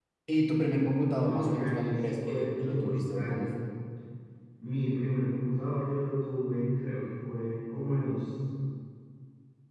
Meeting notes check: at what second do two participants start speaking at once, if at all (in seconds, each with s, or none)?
1.2 s